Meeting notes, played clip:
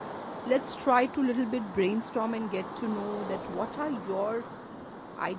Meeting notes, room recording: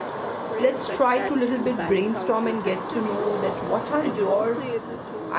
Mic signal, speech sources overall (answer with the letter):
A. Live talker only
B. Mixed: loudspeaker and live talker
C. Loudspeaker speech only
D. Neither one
B